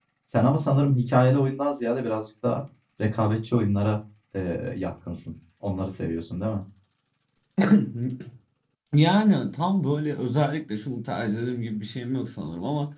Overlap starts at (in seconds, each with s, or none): none